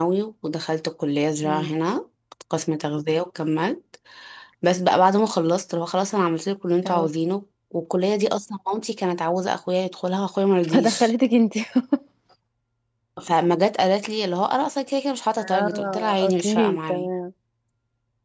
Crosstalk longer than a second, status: present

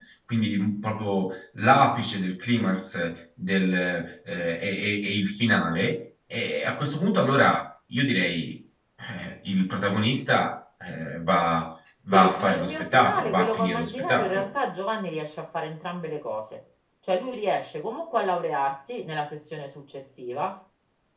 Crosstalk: present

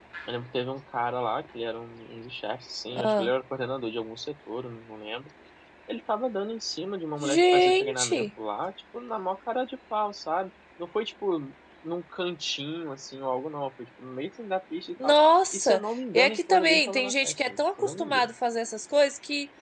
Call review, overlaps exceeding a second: present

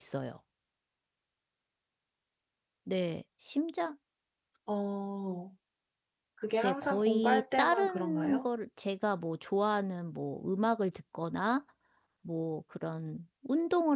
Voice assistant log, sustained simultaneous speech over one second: present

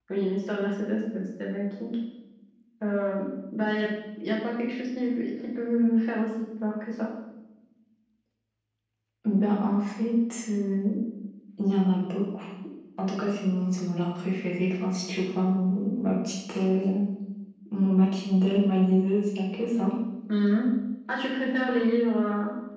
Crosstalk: none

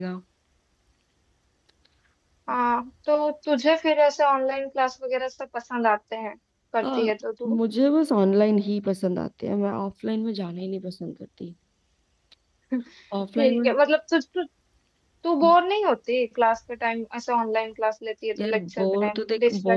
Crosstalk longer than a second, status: present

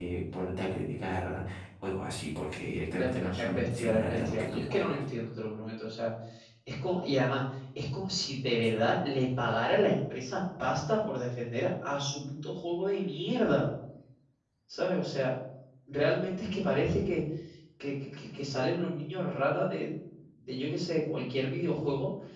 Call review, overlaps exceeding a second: present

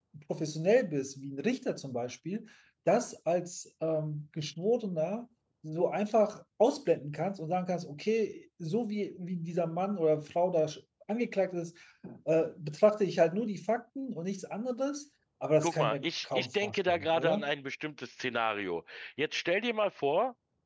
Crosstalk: present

